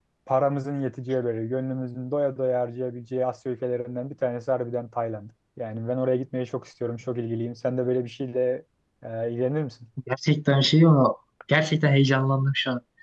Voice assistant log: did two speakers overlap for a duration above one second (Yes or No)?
No